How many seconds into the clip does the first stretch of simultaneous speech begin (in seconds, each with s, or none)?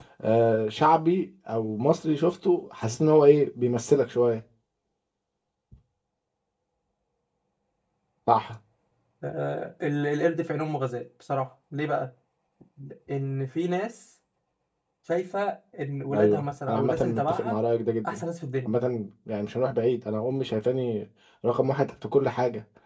16.1 s